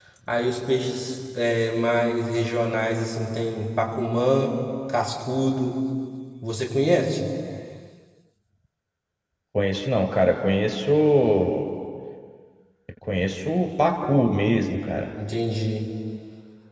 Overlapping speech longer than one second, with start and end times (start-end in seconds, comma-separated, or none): none